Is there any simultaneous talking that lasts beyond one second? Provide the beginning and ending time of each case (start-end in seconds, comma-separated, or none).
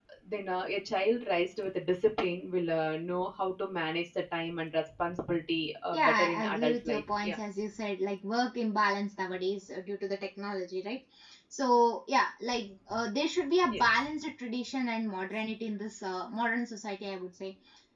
5.9-7.3